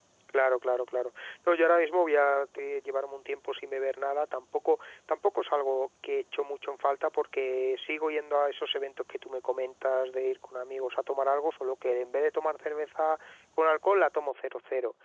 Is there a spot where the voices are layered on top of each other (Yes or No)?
No